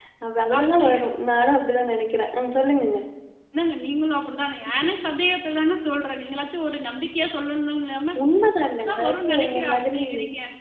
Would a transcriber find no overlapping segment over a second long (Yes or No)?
No